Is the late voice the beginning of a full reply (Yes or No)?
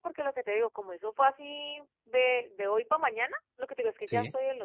No